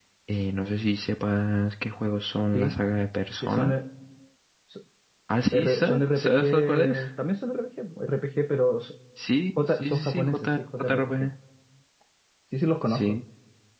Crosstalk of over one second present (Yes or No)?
Yes